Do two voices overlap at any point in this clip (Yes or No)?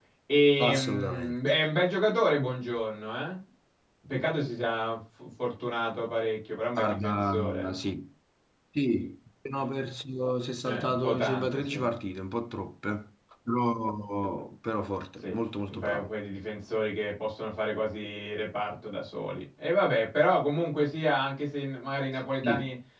Yes